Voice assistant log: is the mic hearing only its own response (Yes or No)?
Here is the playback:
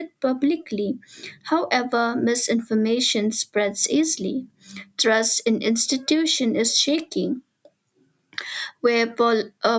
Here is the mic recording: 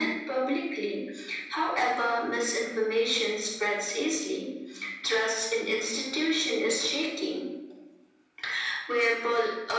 Yes